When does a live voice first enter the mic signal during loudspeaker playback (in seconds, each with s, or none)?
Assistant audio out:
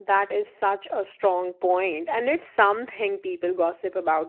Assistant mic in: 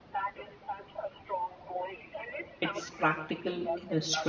2.6 s